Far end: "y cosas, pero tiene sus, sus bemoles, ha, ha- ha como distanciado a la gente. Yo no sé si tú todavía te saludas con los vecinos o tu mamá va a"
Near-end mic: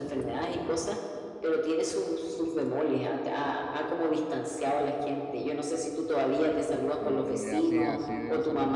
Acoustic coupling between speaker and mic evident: Yes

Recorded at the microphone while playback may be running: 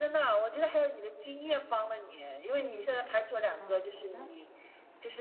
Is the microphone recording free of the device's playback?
No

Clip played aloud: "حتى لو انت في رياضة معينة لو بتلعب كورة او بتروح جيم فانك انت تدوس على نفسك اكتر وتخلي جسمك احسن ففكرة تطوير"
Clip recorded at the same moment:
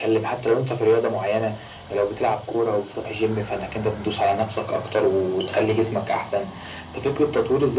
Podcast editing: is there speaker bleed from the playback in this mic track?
Yes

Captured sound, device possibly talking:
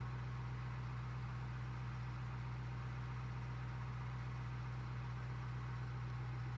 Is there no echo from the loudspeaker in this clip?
Yes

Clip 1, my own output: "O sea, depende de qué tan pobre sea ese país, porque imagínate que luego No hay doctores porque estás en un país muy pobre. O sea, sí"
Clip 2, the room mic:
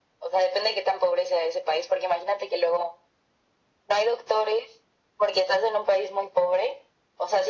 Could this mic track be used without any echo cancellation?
No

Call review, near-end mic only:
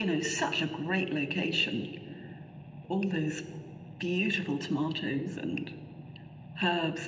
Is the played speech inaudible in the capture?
No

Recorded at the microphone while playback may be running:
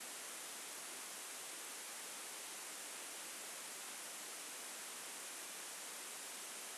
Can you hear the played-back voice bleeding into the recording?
No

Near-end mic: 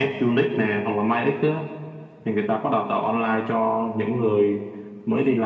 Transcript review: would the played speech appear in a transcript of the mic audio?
Yes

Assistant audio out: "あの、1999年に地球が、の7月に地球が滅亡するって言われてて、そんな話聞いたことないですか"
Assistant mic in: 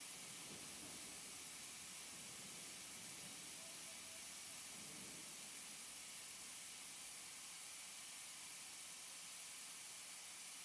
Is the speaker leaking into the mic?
No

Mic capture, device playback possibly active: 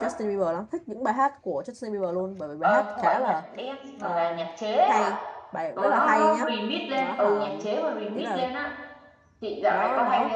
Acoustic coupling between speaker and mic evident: Yes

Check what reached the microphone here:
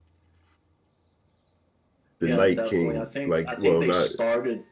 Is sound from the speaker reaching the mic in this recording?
Yes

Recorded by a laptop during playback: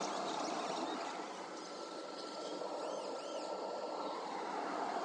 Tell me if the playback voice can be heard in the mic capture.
No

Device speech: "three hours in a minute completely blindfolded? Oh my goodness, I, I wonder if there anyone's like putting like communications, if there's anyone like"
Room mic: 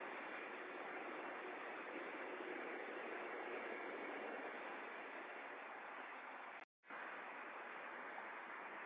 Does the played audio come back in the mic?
No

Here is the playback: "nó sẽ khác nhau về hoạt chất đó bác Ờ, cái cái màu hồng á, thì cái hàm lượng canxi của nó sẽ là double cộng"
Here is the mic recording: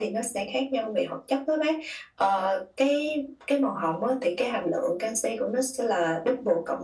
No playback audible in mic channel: No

